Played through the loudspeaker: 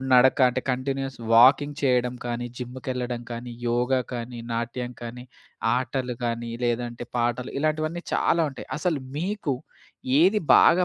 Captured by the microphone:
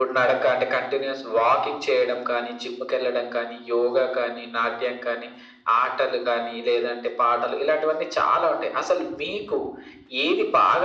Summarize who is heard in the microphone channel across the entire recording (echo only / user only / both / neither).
echo only